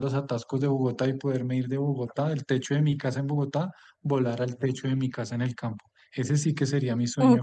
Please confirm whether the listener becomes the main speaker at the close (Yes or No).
Yes